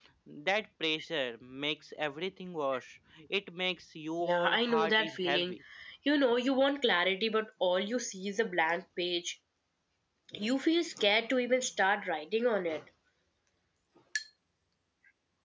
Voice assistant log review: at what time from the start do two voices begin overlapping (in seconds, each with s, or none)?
4.2 s